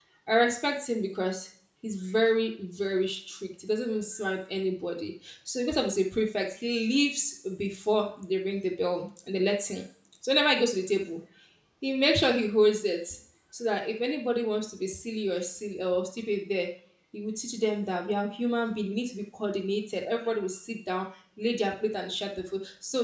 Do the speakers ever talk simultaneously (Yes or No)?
No